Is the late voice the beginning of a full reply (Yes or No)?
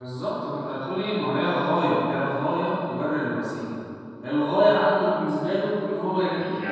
Yes